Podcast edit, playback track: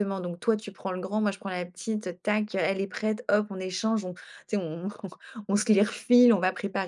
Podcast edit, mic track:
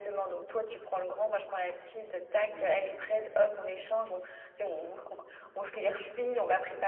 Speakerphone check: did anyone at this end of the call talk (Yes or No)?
Yes